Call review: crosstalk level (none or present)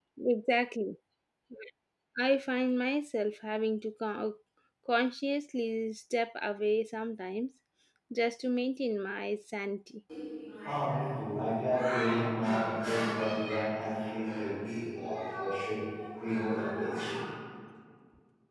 none